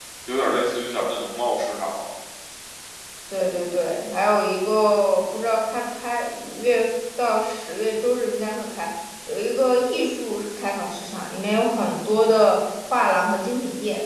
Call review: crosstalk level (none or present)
none